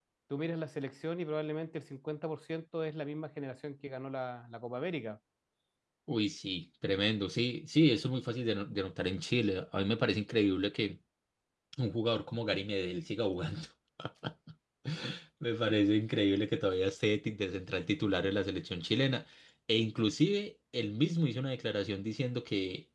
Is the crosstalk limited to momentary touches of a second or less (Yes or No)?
Yes